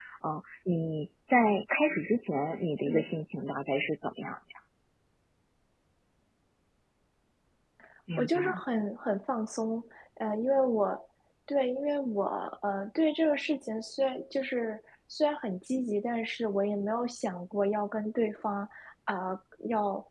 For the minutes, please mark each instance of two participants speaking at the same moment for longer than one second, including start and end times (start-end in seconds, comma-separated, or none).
none